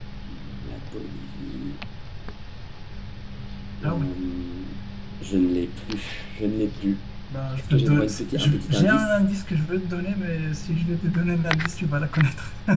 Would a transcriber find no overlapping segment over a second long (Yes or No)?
No